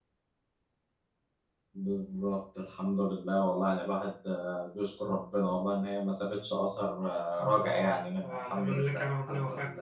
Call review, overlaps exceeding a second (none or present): present